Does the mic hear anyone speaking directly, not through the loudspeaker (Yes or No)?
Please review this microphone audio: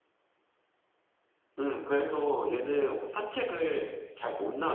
Yes